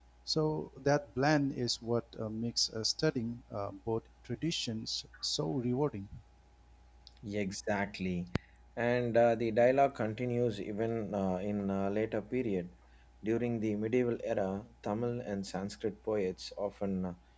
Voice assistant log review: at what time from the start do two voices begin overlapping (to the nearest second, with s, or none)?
none